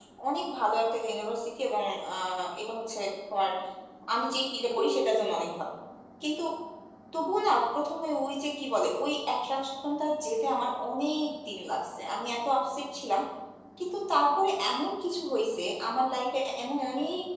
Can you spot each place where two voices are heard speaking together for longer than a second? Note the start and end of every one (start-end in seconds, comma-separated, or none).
none